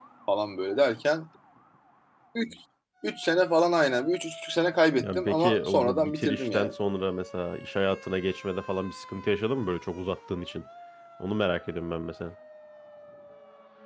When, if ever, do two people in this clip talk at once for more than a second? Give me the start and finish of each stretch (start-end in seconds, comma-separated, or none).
5.0-6.7